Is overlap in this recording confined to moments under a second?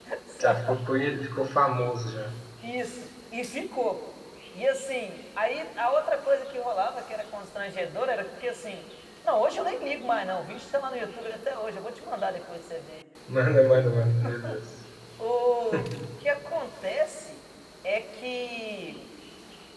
Yes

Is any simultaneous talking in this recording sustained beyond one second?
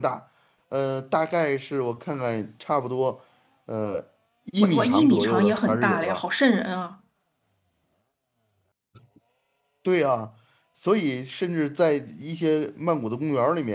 Yes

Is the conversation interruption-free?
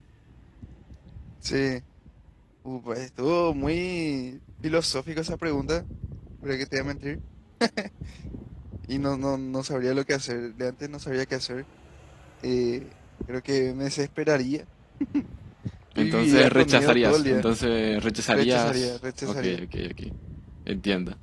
No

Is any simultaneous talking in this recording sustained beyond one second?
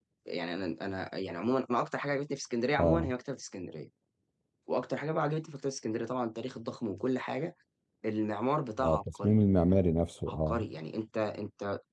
No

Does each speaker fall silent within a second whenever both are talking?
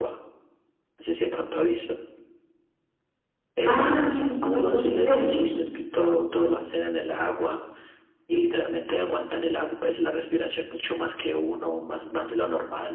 No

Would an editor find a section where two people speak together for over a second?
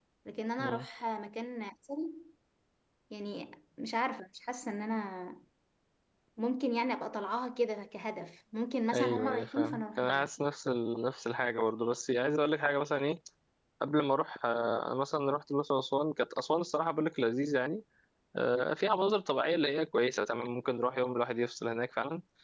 Yes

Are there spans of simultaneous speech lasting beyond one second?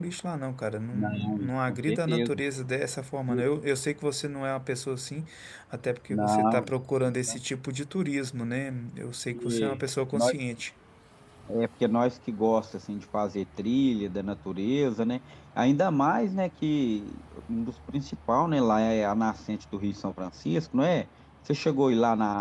Yes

